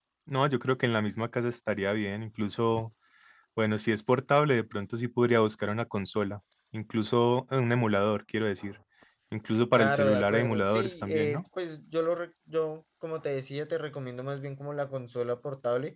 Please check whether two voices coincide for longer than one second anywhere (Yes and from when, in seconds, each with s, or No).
Yes, from 9.8 s